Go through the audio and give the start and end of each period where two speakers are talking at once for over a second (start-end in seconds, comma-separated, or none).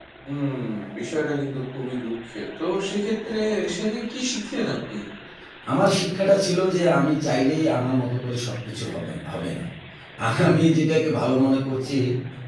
none